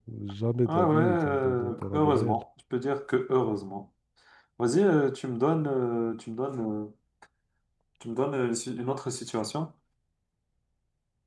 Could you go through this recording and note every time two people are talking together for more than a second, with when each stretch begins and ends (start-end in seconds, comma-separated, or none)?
0.7-2.4